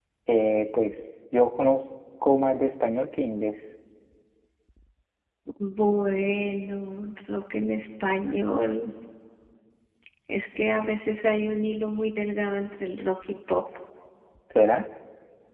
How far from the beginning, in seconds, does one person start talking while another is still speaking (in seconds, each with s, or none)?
none